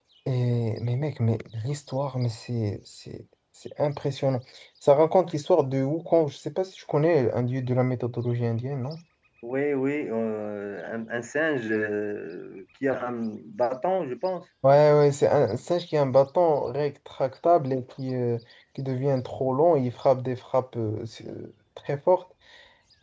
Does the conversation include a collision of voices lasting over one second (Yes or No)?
No